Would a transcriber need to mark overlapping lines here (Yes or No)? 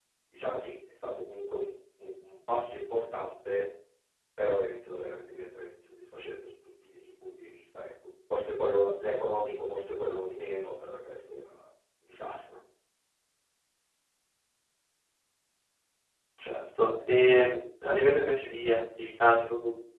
No